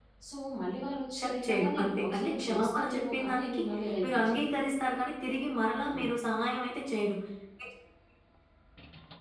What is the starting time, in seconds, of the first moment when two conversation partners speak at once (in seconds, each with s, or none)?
1.2 s